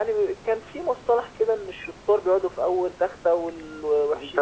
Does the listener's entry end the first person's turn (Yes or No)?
Yes